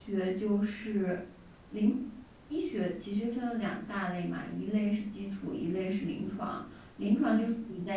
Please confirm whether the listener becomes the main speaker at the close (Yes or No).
No